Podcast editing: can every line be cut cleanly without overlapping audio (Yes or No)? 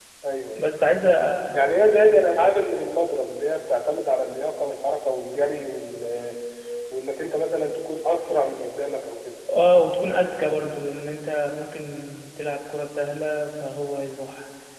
Yes